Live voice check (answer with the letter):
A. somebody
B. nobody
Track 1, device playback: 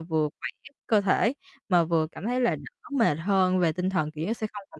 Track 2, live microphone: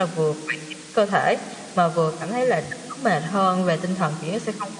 B